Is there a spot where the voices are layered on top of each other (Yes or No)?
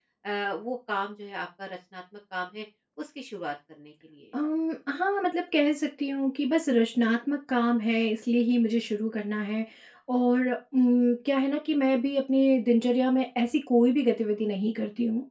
No